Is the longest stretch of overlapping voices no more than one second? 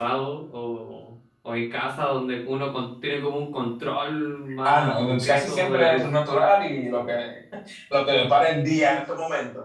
No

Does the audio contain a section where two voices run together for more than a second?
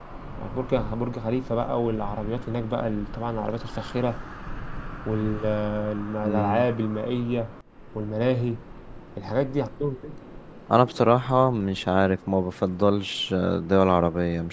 No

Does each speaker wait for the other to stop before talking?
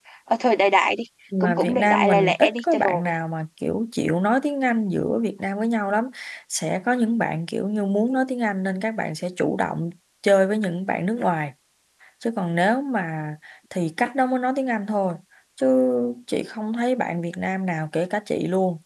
No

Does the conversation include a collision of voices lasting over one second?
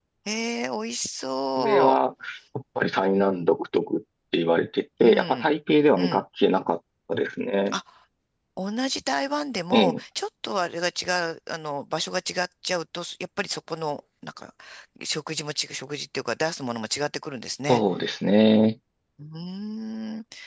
No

